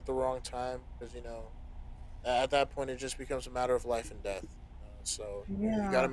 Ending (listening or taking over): listening